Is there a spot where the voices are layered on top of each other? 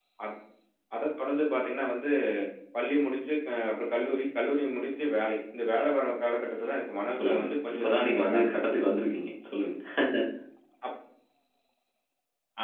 Yes, from 7.1 s

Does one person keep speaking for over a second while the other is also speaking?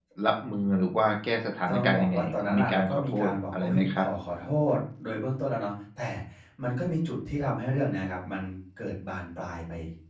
Yes, from 1.7 s

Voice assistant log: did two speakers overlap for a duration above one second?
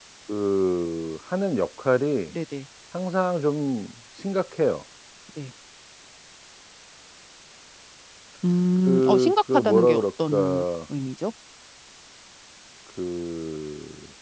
Yes, from 8.8 s

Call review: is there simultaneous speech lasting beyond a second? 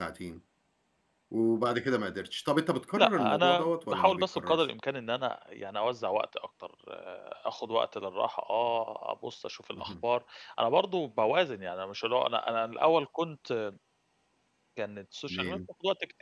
Yes, from 3.0 s

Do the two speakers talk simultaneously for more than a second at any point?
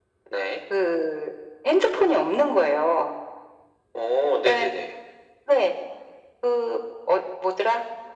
No

